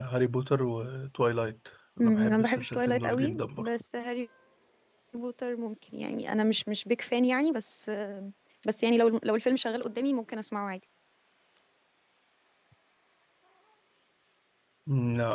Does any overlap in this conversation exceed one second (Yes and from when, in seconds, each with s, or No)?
Yes, from 2.0 s